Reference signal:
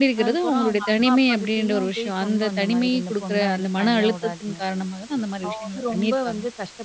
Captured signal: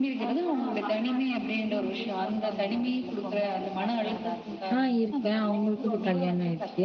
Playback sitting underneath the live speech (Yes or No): Yes